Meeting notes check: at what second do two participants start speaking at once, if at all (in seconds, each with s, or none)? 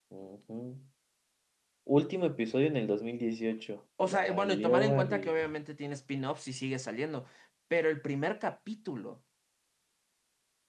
4.0 s